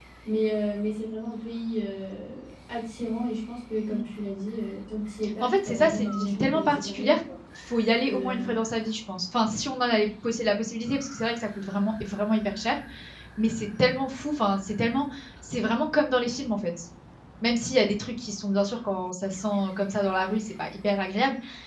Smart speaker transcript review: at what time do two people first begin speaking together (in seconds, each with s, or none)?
5.4 s